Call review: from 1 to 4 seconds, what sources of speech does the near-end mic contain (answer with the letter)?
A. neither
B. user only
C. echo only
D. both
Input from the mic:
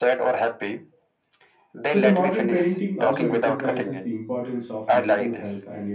D